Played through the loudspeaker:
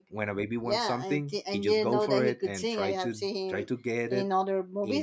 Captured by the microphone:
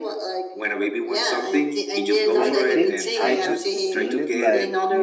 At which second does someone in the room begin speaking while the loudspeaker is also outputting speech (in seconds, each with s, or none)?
2.4 s